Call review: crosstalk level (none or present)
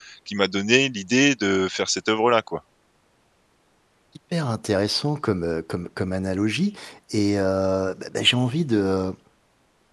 none